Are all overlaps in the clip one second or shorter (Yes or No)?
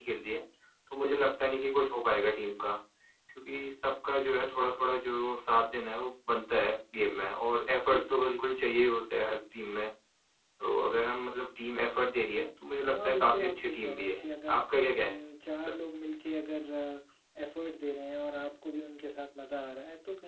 No